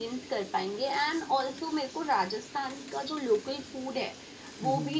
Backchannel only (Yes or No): Yes